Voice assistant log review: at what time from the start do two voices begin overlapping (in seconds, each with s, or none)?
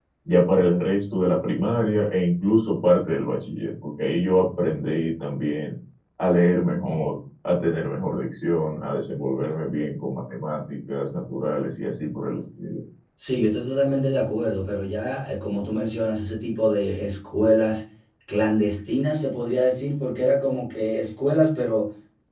none